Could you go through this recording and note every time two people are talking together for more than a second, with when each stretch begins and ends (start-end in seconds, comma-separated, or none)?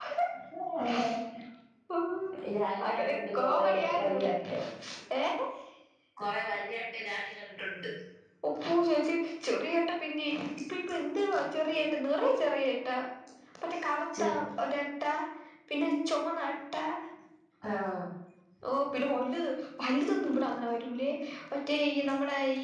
2.9-4.3